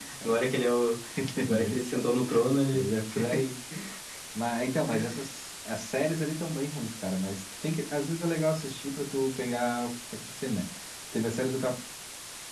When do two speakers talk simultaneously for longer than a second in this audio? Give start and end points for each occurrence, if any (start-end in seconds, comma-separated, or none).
none